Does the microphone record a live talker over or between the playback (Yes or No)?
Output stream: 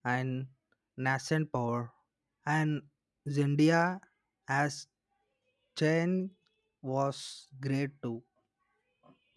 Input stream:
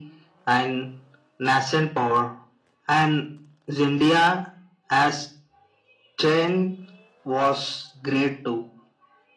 No